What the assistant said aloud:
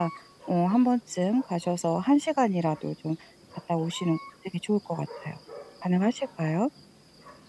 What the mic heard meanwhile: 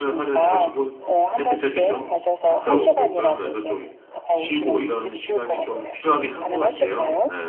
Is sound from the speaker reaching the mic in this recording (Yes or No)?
Yes